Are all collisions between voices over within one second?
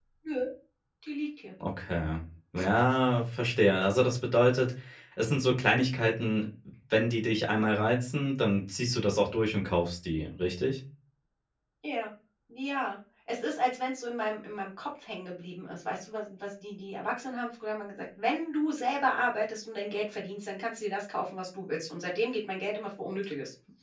Yes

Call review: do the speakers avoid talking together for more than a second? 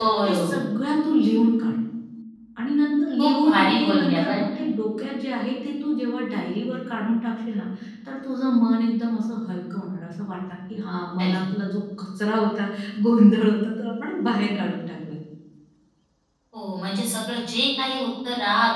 No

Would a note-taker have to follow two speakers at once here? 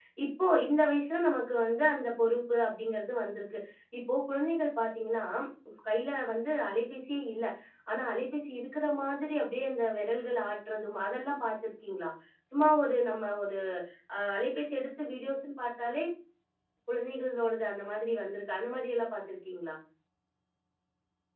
No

